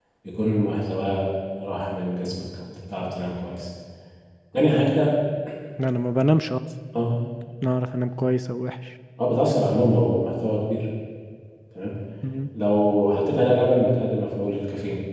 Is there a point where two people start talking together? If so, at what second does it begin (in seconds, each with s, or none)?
none